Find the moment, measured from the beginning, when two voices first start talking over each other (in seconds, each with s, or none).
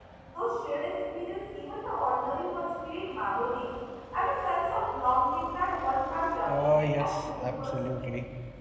6.5 s